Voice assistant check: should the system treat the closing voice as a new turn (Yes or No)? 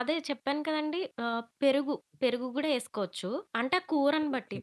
No